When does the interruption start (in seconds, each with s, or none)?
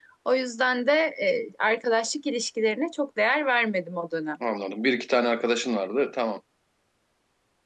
none